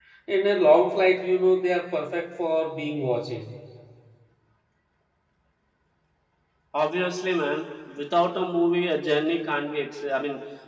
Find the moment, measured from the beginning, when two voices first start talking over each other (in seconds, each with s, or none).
none